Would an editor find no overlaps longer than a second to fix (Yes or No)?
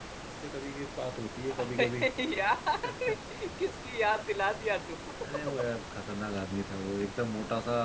Yes